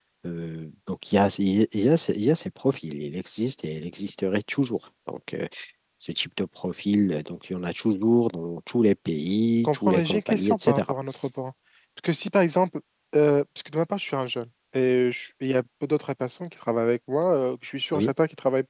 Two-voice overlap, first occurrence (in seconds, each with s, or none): 9.6 s